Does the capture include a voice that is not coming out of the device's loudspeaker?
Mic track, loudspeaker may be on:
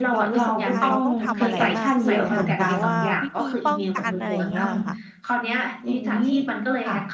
Yes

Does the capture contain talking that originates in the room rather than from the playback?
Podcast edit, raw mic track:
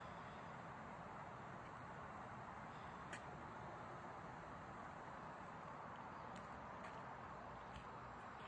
No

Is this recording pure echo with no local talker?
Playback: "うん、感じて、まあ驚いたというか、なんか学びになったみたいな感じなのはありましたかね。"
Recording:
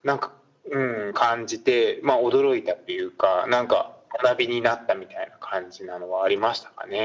Yes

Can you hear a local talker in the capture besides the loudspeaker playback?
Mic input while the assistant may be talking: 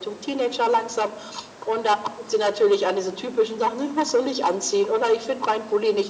No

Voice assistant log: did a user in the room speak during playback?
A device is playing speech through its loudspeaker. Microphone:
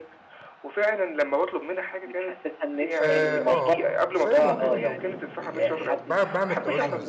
Yes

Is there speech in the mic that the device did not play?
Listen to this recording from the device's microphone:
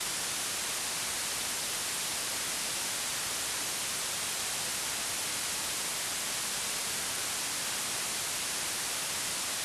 No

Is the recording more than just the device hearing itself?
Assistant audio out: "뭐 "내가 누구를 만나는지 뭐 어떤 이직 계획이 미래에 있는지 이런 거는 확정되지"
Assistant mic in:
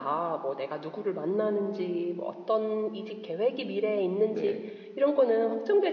Yes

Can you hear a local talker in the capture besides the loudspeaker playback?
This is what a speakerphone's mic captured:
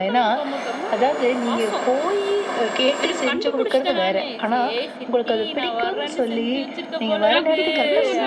Yes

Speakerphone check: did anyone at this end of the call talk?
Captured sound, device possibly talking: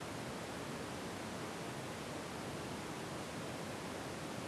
No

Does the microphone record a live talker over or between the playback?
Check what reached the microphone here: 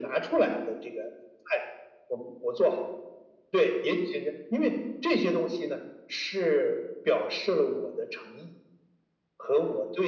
No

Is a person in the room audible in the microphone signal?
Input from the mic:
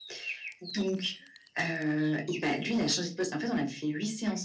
No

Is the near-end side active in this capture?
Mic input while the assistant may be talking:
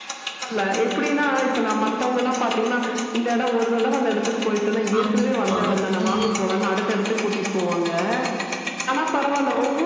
Yes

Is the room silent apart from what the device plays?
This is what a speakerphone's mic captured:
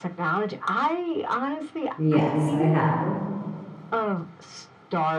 No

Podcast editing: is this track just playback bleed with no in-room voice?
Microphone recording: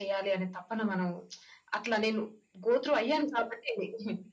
Yes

